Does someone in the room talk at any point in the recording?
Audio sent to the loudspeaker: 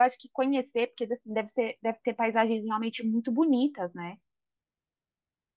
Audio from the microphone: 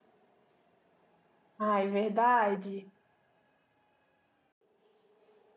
Yes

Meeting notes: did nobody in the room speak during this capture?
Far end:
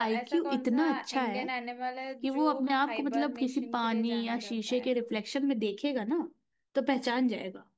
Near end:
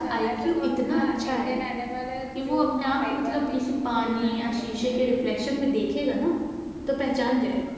Yes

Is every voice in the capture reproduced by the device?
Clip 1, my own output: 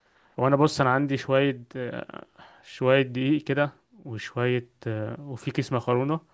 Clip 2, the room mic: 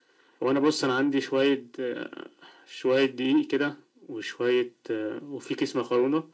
Yes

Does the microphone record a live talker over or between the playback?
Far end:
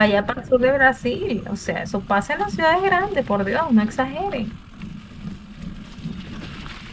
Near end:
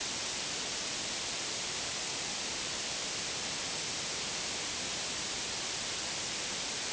No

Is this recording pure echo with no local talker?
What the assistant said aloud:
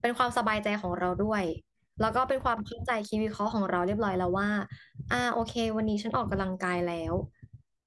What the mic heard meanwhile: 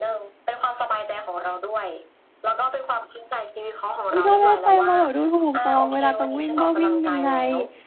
No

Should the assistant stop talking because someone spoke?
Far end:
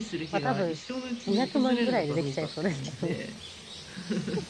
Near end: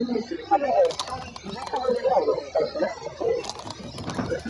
No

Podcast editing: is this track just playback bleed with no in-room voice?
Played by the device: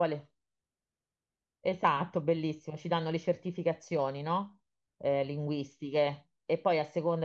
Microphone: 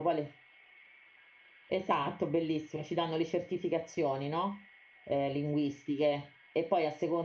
Yes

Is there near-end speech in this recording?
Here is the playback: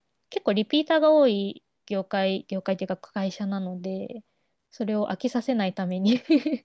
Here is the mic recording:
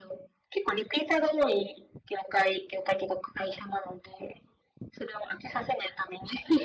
No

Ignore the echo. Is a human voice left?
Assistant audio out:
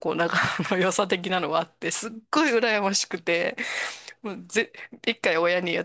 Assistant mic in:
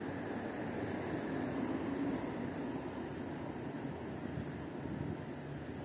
No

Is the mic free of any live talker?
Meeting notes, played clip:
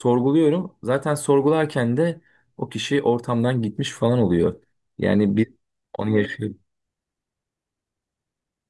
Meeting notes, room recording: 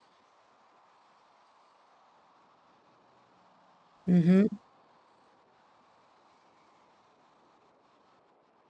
No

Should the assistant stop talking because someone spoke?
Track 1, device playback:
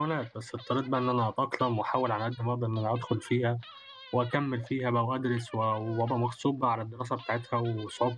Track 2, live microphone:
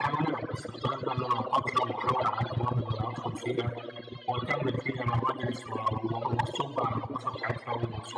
No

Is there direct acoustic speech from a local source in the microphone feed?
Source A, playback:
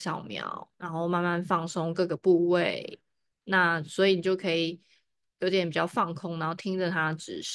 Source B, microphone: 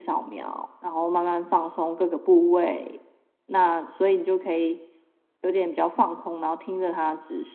No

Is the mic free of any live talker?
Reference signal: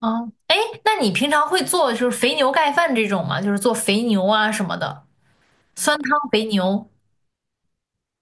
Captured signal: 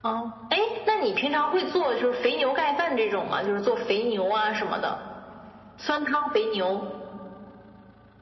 Yes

